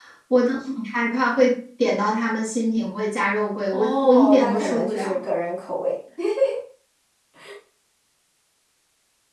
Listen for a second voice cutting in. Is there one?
Yes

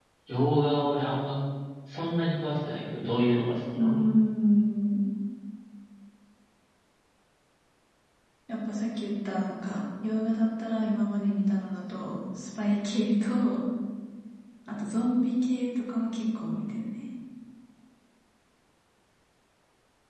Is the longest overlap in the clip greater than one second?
No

